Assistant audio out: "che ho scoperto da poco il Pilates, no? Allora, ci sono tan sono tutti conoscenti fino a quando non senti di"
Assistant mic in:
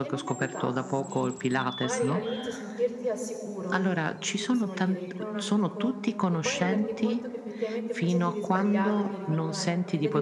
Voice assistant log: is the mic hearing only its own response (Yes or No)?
No